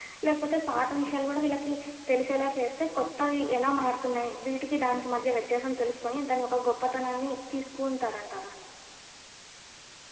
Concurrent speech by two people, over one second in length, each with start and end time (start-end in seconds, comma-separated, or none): none